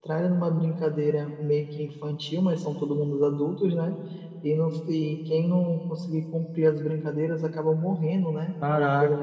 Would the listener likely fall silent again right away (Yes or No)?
No